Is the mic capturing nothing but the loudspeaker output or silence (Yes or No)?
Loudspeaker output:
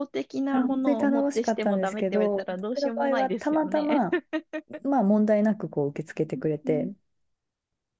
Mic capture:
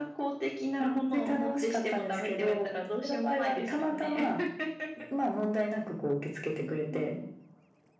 Yes